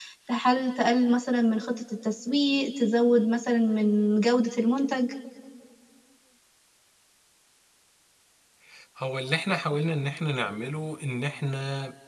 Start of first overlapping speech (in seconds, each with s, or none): none